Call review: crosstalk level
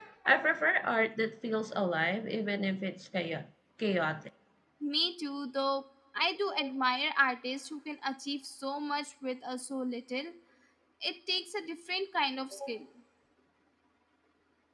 none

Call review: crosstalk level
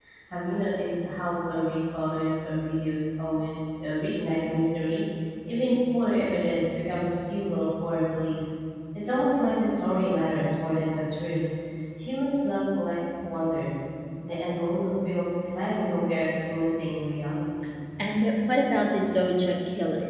none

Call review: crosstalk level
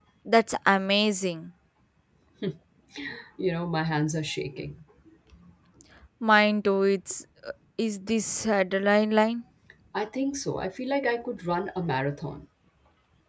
none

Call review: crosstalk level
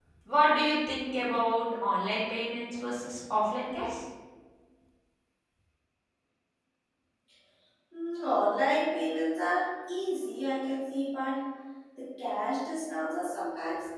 none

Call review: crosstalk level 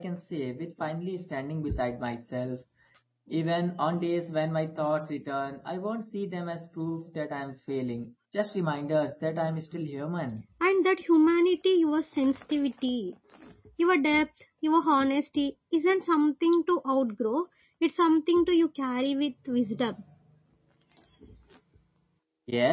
none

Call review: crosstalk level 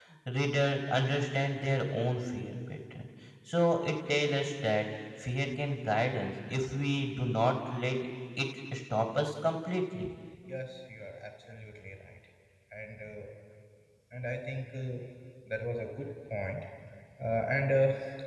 none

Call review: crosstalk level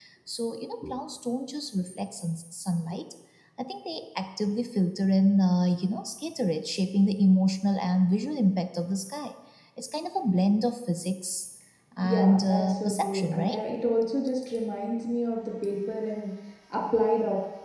present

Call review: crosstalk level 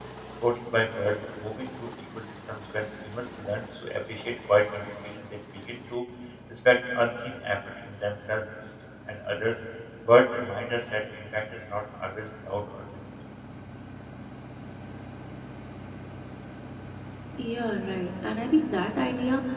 none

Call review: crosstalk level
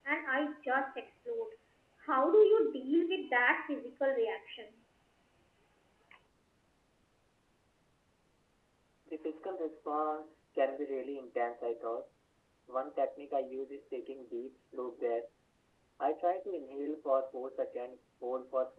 none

